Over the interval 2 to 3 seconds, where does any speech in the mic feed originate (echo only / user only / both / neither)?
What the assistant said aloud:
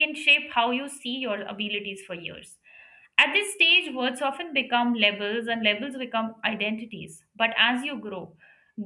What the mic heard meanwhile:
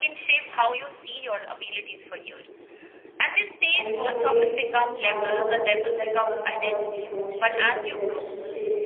echo only